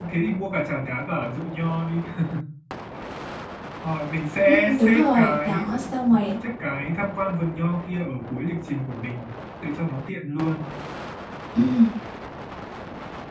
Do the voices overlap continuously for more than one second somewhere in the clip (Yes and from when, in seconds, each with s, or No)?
Yes, from 4.5 s